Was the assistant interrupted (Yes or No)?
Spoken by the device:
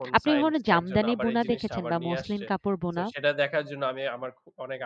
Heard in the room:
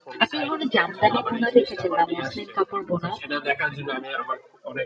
No